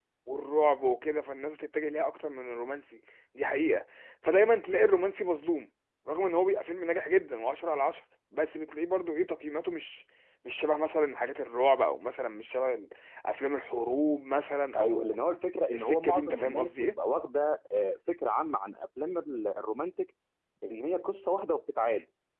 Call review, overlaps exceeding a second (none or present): present